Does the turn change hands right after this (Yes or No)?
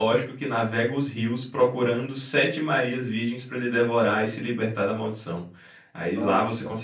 No